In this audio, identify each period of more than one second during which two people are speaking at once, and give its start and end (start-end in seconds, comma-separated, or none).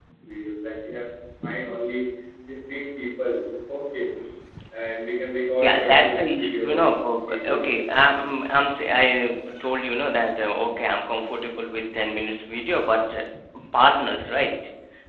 5.6-6.9